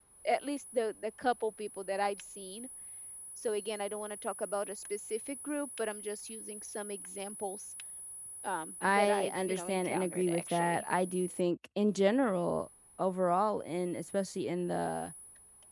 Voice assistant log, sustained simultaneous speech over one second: present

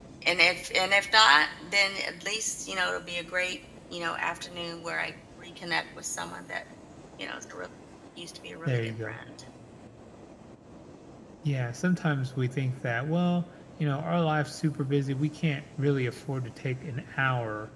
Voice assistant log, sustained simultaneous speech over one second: none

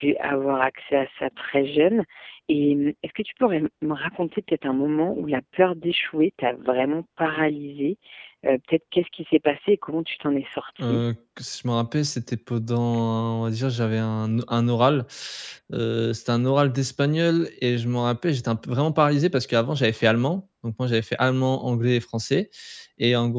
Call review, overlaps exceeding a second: none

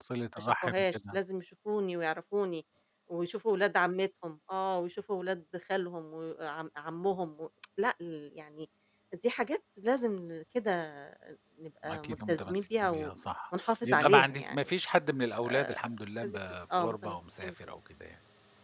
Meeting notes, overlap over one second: present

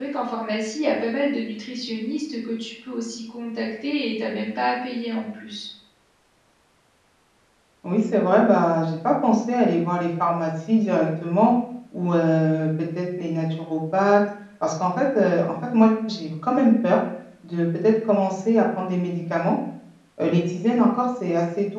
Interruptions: none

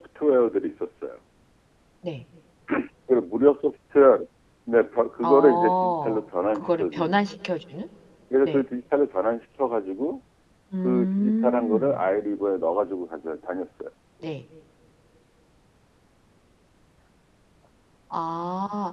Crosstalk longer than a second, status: present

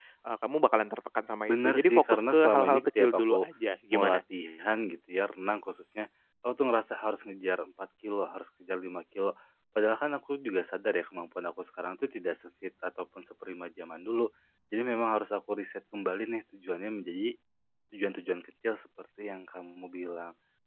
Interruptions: present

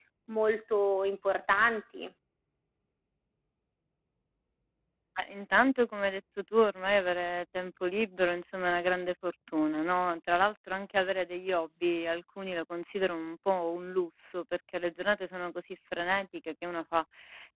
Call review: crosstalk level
none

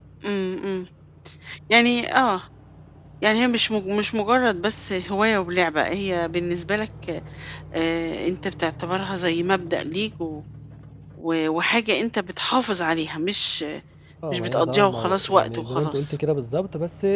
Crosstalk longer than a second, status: present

